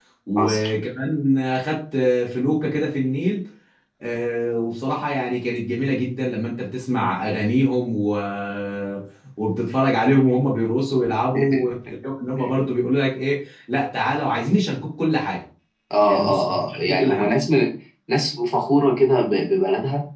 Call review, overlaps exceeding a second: present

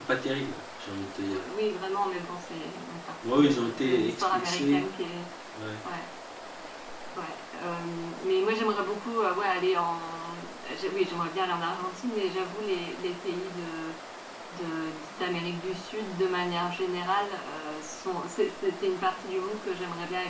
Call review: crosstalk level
present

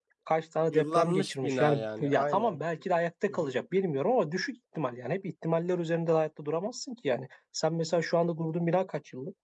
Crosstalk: present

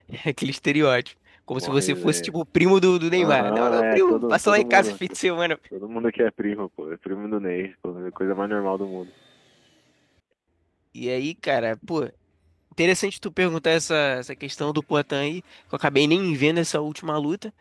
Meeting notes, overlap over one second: present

